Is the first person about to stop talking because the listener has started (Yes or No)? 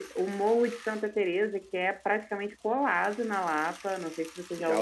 Yes